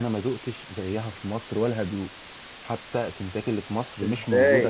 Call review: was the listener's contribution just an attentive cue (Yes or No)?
No